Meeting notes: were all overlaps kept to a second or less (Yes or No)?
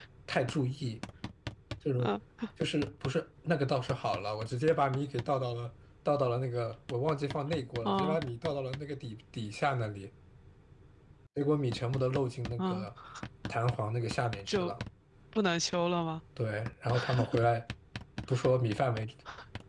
Yes